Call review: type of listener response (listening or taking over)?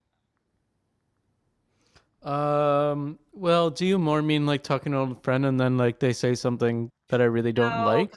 taking over